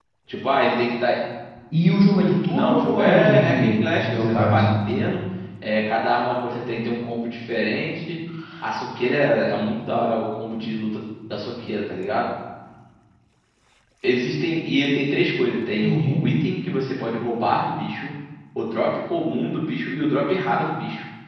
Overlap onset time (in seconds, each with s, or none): 2.5 s